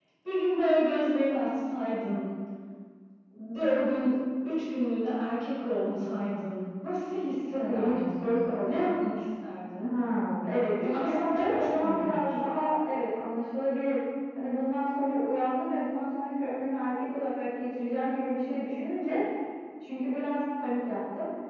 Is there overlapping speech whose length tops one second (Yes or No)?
Yes